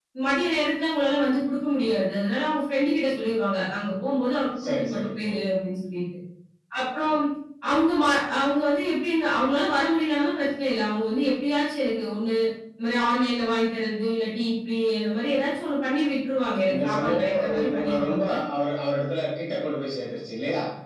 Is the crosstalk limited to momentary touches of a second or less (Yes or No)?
No